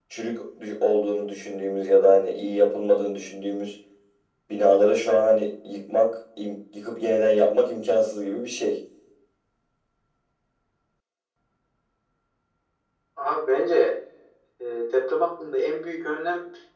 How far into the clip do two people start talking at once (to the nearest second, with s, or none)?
none